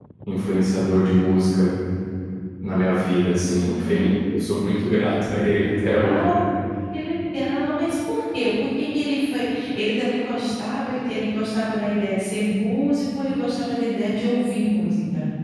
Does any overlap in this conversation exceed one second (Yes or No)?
No